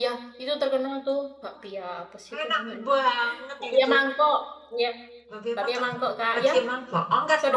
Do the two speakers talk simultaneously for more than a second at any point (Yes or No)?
No